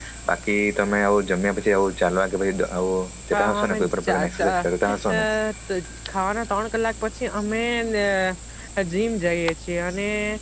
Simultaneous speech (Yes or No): Yes